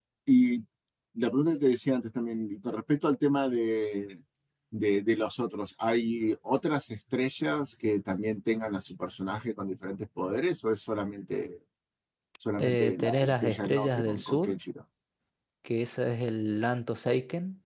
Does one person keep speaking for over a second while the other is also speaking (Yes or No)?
Yes